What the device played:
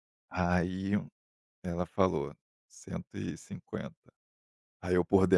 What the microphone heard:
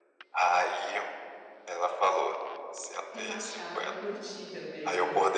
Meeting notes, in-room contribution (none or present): present